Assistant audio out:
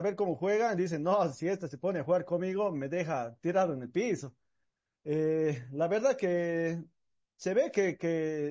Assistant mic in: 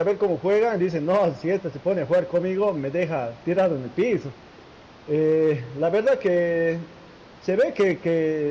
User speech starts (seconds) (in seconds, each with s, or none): none